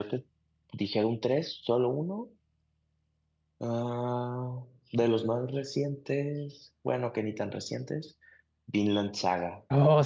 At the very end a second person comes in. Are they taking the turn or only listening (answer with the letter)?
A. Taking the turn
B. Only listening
A